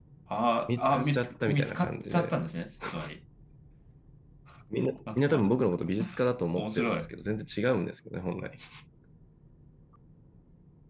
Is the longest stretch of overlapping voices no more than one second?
No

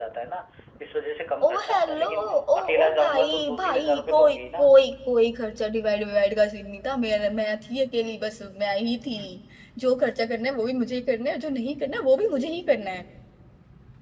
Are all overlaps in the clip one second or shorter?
No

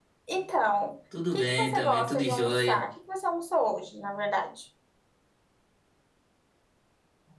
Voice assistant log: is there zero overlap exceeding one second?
No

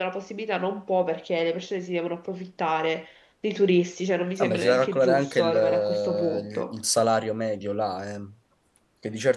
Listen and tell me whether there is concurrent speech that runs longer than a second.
Yes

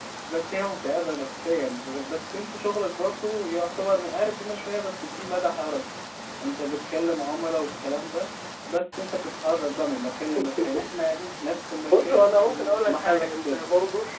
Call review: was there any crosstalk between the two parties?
Yes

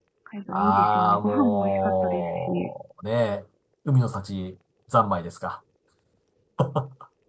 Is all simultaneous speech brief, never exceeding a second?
No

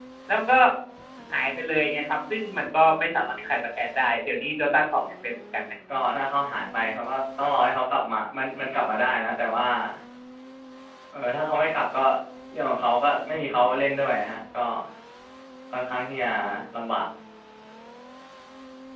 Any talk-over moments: No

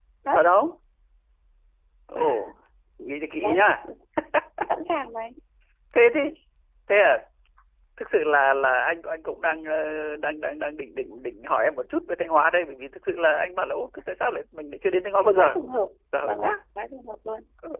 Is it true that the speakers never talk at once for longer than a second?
Yes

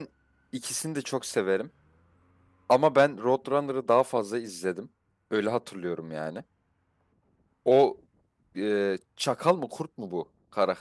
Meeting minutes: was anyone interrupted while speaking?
No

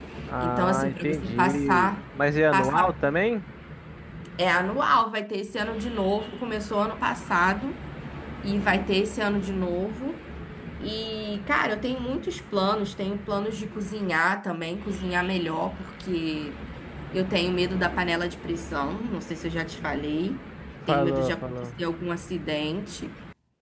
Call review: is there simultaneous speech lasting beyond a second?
Yes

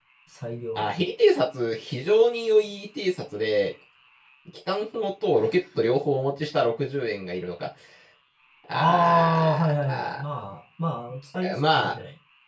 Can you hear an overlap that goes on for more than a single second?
Yes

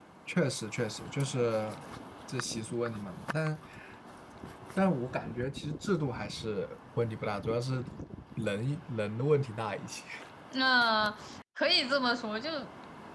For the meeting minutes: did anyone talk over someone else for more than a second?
No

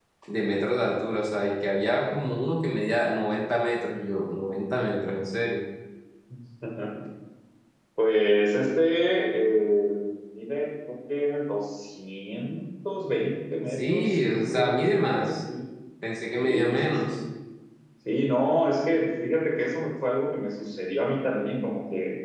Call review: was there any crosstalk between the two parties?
Yes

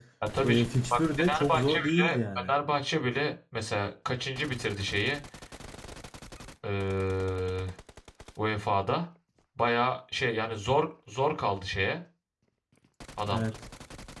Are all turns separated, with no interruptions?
No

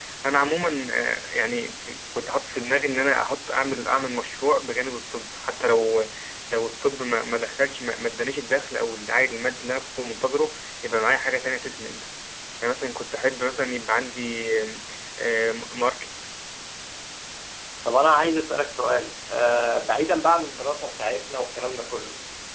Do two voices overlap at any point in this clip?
No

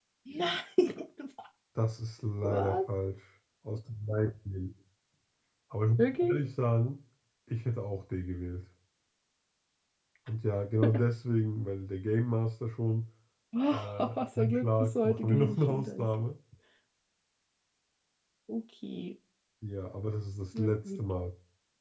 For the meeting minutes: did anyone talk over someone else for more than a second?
Yes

